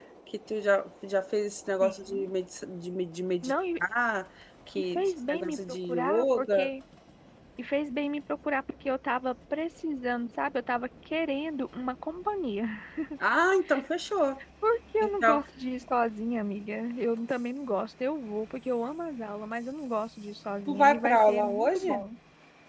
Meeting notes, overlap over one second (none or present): present